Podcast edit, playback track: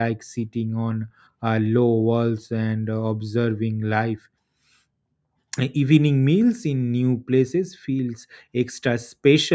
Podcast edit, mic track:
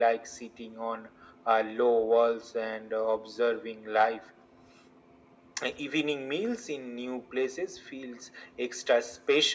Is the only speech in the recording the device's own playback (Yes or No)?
Yes